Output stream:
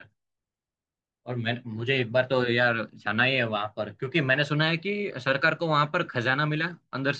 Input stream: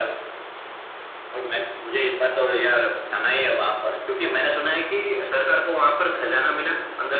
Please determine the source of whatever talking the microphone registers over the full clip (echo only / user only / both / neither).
echo only